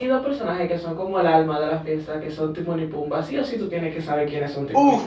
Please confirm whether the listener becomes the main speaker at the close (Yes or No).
Yes